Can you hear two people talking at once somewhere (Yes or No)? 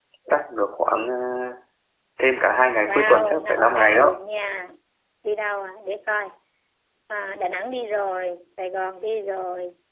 Yes